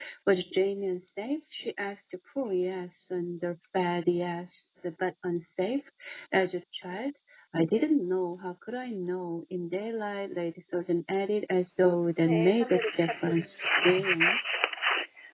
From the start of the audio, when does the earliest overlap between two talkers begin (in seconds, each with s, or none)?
12.2 s